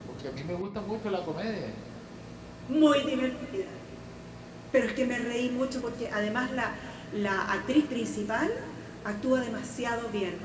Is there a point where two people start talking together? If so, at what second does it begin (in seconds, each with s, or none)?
none